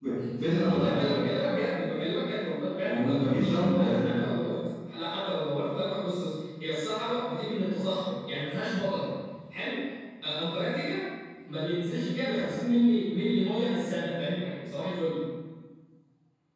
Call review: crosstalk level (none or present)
present